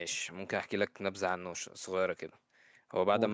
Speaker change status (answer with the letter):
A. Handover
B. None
B